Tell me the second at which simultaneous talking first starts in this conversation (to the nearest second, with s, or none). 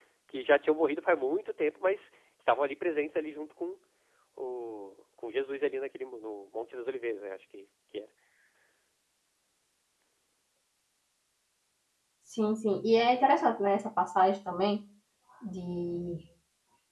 none